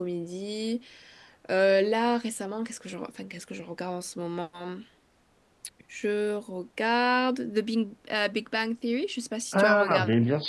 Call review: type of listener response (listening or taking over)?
taking over